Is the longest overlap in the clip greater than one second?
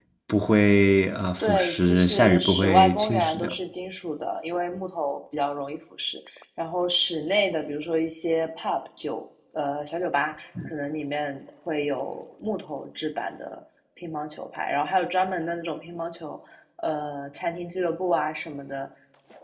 Yes, from 1.4 s

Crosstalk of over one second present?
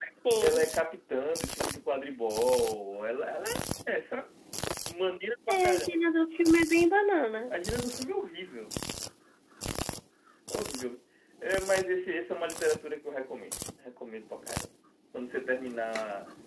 No

